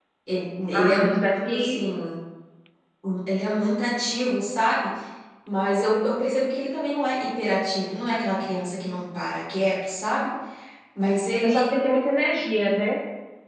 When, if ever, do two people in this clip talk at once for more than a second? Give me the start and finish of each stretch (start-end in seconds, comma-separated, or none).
none